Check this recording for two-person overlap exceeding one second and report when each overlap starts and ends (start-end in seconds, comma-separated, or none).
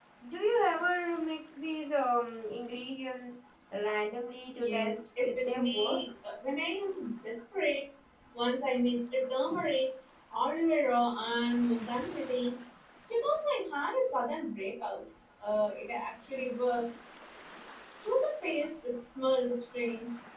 4.6-6.0